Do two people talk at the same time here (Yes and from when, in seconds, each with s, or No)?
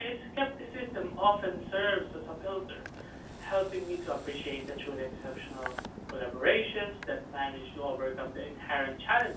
No